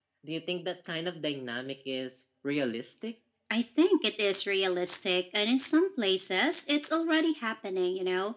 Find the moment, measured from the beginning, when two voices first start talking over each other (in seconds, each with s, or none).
none